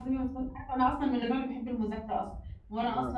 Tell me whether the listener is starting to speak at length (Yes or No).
No